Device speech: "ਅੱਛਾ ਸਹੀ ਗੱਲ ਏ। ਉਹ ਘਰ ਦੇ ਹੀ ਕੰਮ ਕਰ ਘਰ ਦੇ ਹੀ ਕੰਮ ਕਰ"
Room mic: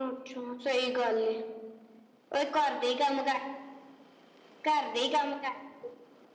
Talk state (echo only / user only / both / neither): echo only